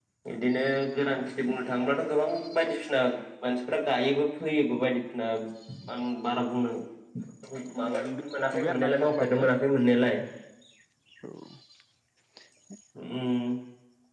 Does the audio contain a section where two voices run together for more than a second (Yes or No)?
Yes